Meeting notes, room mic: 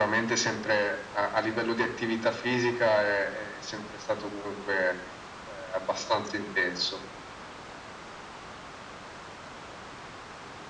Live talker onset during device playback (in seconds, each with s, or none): none